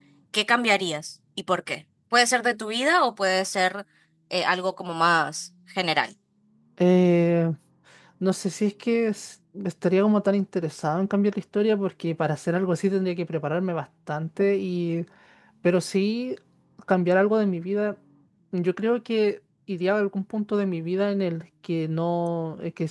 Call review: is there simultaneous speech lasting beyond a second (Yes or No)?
No